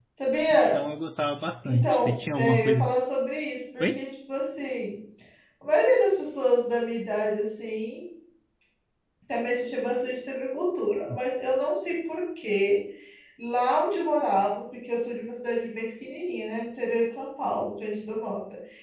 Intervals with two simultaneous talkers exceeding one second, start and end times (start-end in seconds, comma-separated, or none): 1.6-3.0